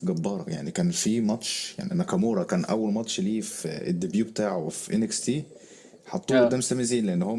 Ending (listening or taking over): listening